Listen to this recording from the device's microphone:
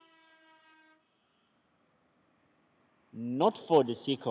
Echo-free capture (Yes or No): Yes